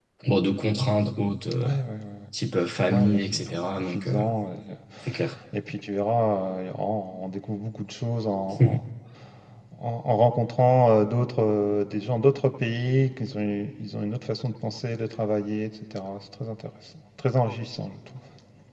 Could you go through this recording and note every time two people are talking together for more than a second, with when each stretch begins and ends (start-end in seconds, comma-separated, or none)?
2.9-4.2